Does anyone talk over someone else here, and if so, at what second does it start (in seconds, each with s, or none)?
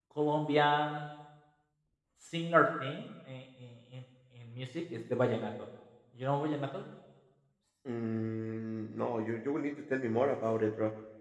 none